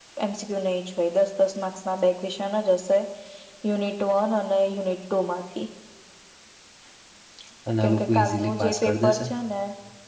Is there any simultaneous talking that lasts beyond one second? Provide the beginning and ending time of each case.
7.8-9.3

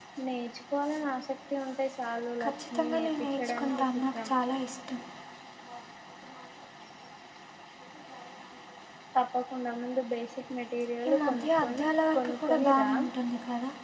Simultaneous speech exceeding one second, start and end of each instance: 2.4-4.3, 11.1-12.9

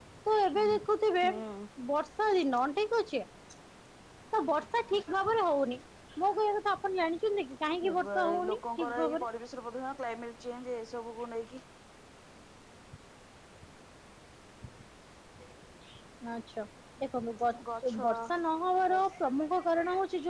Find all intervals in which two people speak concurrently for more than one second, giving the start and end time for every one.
7.9-9.2

